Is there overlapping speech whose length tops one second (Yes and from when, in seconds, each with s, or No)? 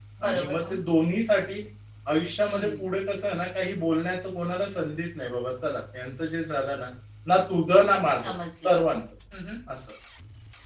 No